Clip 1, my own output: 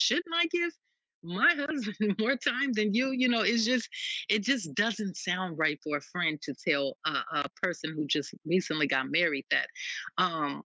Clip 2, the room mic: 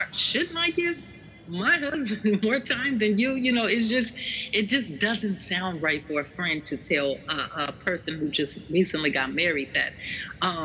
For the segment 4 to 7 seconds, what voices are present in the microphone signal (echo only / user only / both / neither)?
echo only